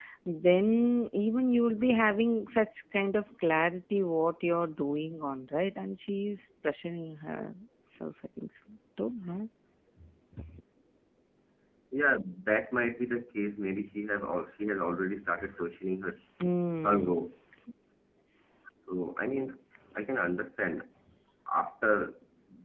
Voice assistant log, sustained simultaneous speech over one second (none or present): none